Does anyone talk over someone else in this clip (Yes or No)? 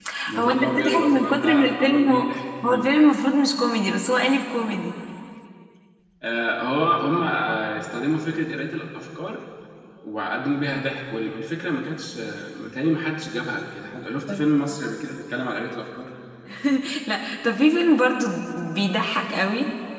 Yes